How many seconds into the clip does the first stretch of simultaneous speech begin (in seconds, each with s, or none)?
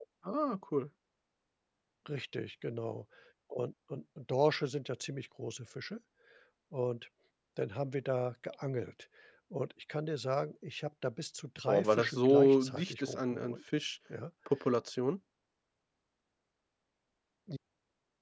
11.7 s